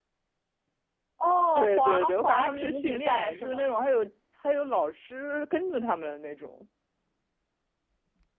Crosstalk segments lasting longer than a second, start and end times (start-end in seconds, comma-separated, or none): 1.5-3.7